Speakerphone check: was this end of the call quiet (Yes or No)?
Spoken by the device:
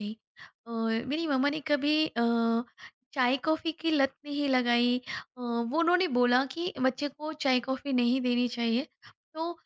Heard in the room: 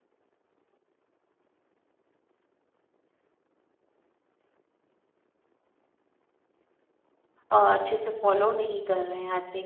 No